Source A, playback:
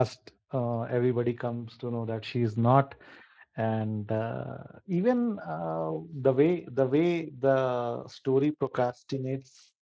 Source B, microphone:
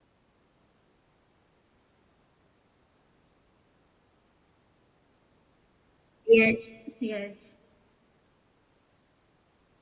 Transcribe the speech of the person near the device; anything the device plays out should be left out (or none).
Yes, yes.